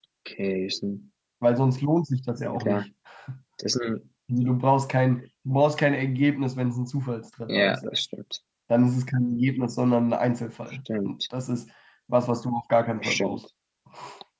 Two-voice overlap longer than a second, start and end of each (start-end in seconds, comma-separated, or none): none